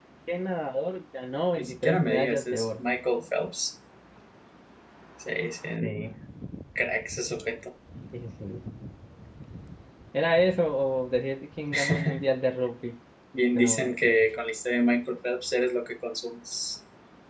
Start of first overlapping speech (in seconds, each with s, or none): 1.6 s